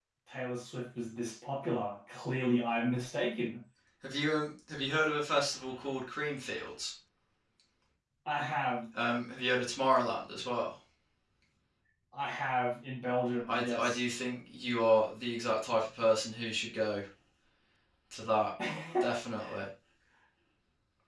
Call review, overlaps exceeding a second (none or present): none